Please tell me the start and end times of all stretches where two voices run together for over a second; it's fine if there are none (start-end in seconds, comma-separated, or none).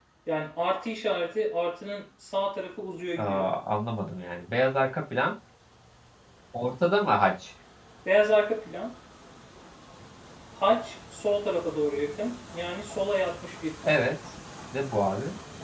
none